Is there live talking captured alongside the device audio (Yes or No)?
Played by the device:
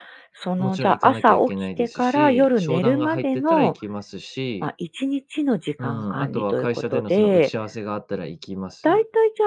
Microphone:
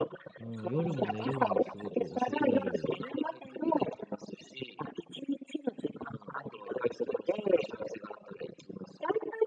Yes